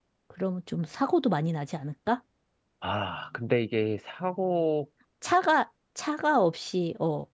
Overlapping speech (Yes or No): No